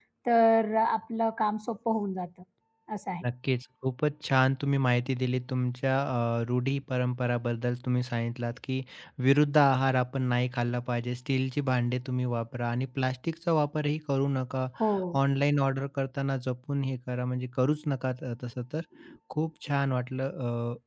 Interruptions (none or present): none